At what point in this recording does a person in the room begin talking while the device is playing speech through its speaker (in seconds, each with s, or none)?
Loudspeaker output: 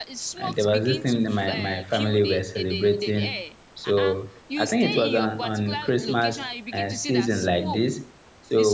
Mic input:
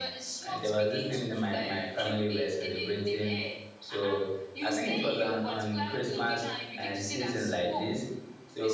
none